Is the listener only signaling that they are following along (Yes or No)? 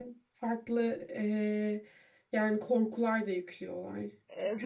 No